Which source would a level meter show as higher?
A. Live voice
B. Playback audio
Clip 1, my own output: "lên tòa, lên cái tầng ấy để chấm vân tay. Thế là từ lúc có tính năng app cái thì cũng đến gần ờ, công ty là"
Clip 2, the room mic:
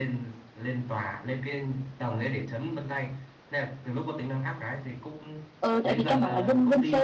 A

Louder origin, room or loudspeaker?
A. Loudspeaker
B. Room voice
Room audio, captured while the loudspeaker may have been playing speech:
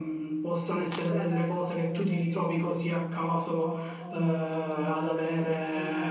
A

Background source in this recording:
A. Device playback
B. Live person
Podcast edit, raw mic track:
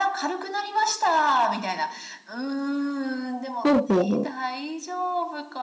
A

